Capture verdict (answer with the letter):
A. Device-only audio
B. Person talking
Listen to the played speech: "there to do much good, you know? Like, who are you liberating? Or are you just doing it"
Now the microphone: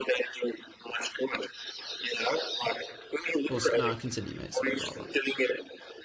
B